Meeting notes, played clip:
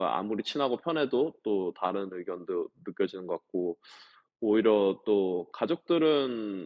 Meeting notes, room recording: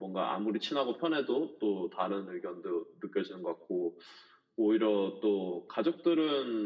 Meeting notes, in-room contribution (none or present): none